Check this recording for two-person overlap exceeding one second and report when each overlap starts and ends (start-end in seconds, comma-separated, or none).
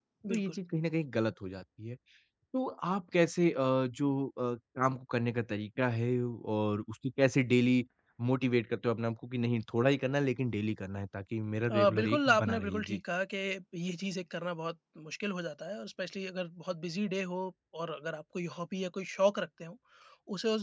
11.7-13.0